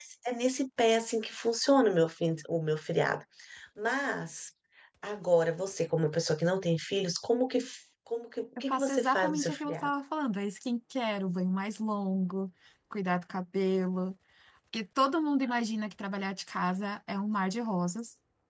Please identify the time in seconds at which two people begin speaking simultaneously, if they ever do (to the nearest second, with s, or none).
9 s